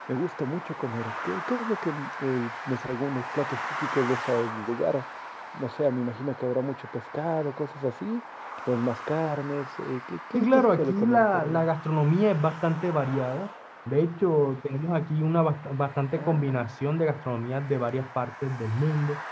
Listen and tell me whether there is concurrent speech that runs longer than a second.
Yes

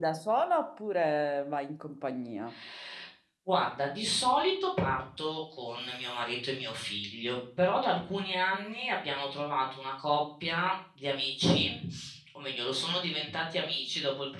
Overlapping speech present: No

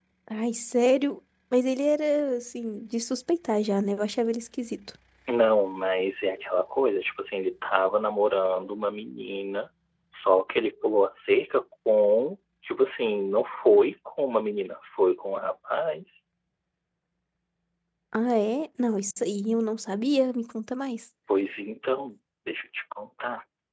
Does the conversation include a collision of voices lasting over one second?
No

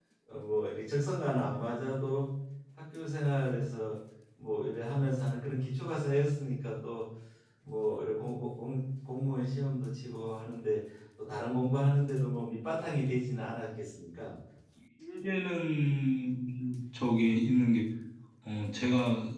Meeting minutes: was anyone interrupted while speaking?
No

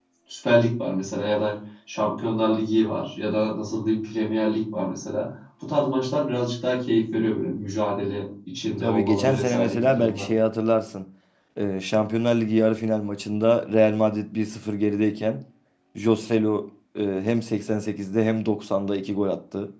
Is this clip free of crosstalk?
No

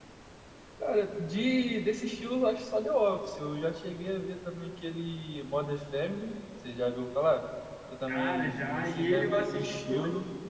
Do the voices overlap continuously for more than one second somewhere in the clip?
Yes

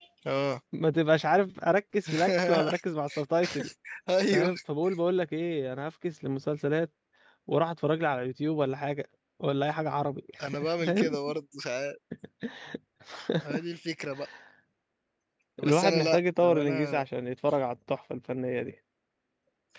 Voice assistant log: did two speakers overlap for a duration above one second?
Yes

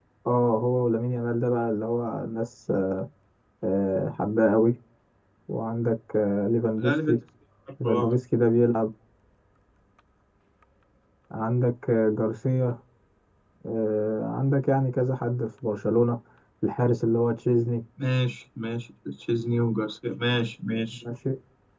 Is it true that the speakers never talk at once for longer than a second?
Yes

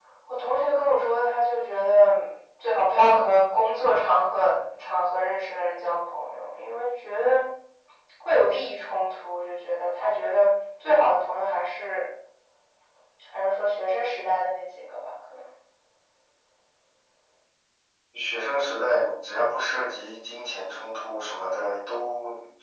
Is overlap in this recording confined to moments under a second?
Yes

